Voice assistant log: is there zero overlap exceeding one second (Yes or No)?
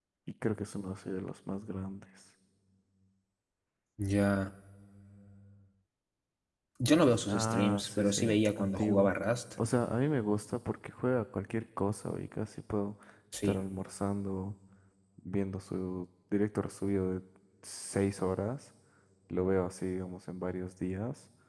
No